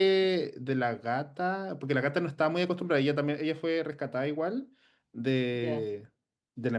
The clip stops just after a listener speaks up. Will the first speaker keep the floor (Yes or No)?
Yes